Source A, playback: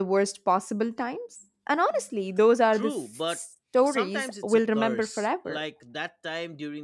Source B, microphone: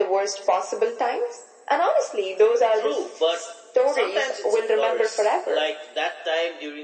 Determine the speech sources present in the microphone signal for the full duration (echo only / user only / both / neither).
echo only